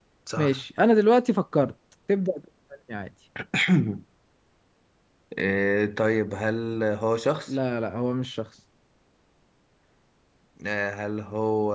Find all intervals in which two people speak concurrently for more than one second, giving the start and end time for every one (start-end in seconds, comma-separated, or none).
none